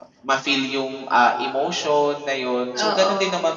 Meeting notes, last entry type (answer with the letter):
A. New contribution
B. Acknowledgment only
B